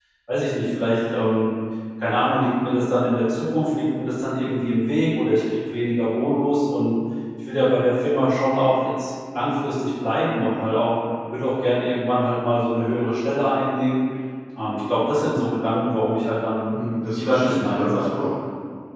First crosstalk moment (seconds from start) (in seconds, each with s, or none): 16.7 s